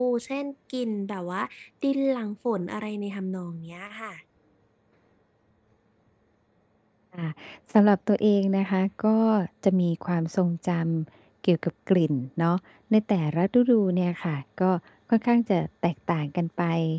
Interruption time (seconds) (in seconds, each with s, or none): none